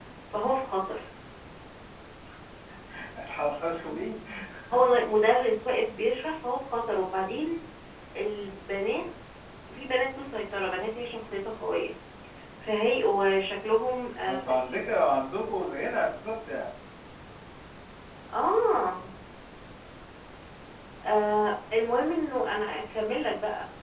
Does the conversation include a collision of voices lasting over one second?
No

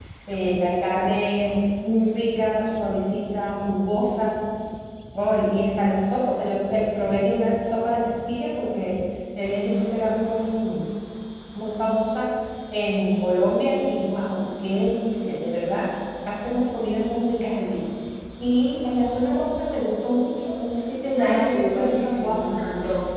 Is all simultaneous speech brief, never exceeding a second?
No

